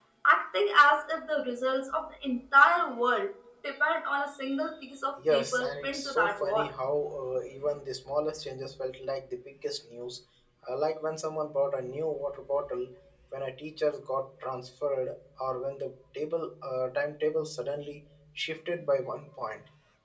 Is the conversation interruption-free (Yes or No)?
No